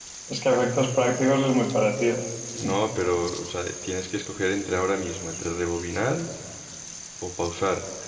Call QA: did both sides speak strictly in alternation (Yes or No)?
Yes